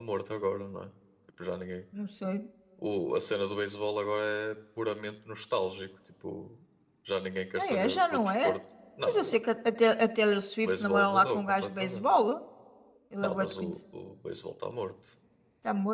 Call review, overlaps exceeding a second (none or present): present